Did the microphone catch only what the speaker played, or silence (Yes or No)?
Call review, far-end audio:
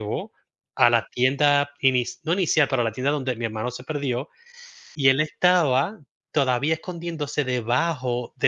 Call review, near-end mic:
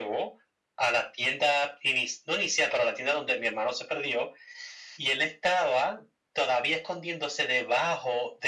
Yes